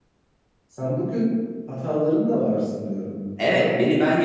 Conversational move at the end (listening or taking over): taking over